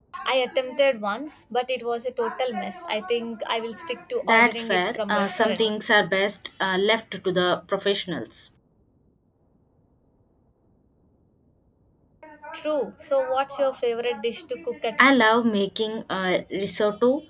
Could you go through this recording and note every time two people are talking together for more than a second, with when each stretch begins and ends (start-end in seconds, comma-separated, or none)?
4.2-5.7